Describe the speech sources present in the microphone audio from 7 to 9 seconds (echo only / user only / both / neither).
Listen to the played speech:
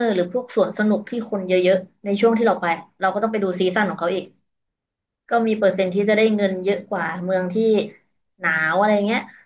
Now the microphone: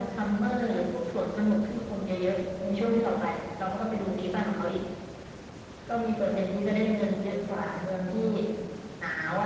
echo only